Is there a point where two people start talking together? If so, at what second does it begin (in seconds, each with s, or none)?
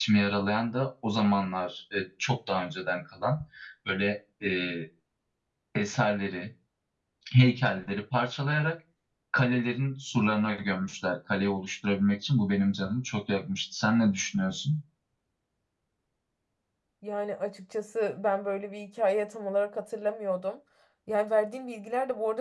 none